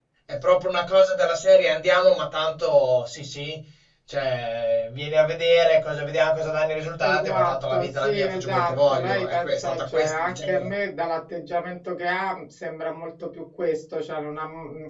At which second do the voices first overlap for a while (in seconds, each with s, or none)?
7.0 s